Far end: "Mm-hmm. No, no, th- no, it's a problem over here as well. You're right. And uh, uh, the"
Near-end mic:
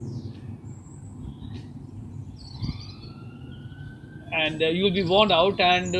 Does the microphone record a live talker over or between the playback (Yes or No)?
Yes